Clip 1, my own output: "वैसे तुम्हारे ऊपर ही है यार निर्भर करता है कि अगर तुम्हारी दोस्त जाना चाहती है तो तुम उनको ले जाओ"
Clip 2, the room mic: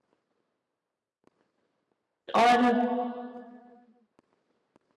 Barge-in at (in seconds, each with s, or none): 2.3 s